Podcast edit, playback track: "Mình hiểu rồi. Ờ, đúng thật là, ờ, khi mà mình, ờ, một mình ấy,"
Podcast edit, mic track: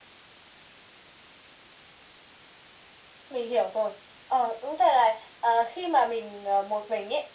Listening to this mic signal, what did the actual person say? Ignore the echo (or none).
none